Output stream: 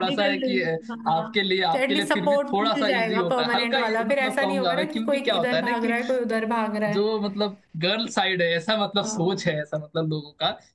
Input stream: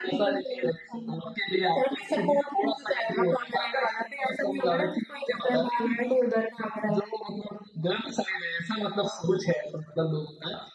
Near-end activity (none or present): none